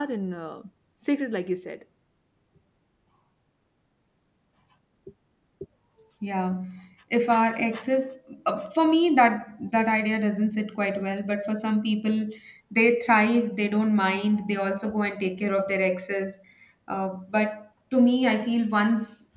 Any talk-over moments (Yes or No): No